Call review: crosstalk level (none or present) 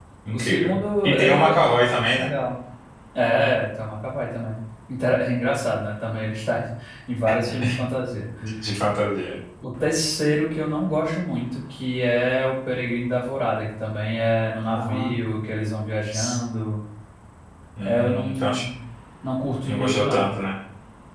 present